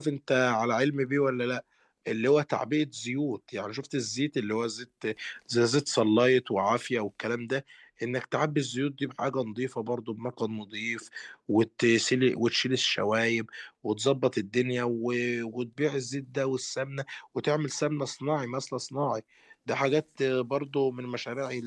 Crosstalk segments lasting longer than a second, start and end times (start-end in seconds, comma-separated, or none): none